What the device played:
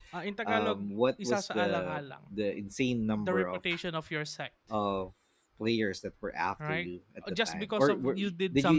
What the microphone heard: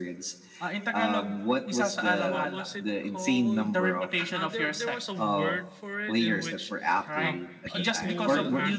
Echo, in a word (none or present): present